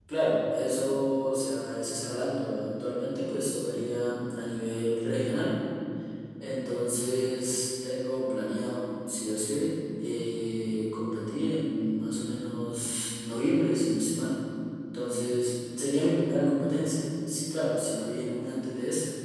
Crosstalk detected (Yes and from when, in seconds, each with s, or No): No